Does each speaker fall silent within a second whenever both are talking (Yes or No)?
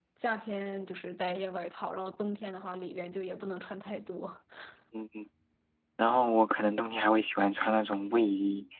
Yes